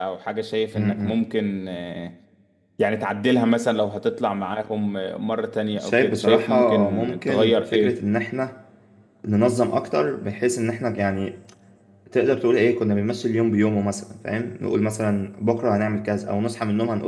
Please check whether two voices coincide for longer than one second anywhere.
Yes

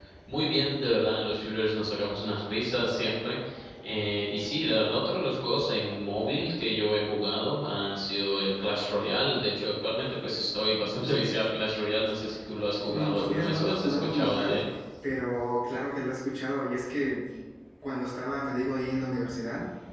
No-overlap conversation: No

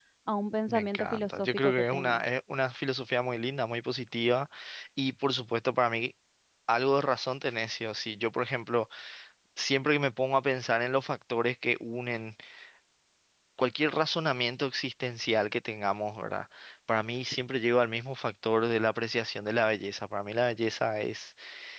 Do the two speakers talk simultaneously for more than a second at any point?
Yes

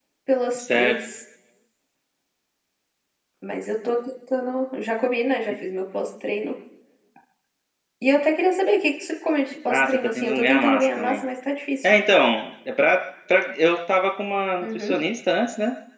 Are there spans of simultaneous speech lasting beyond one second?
Yes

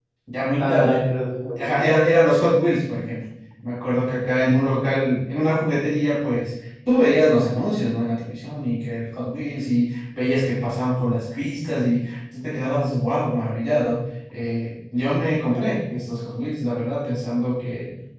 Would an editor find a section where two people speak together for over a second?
No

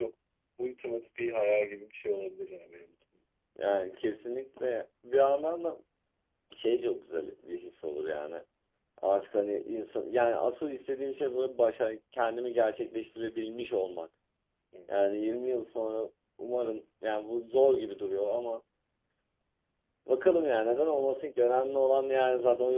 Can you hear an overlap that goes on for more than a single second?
No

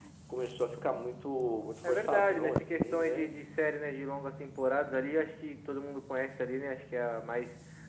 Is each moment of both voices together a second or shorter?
No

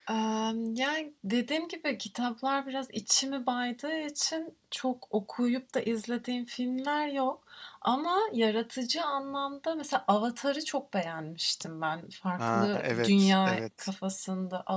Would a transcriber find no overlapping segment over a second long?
No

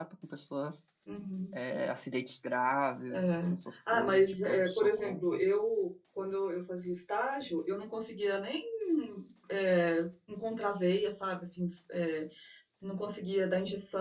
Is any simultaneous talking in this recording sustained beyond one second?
Yes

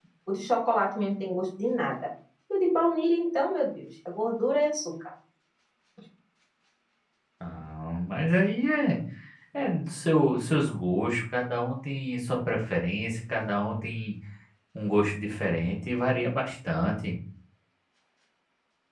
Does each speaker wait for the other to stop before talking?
Yes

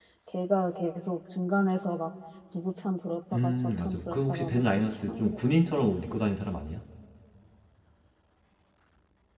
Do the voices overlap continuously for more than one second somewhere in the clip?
Yes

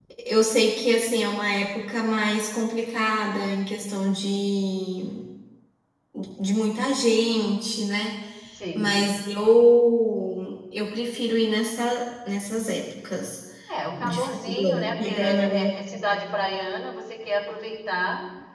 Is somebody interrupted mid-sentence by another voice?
Yes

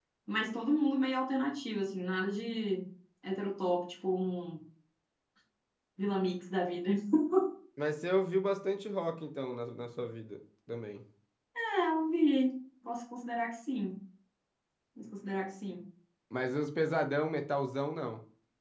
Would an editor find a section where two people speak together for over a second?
No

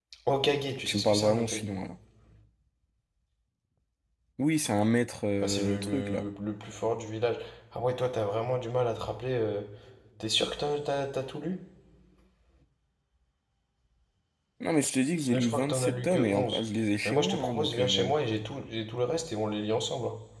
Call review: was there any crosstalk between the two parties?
Yes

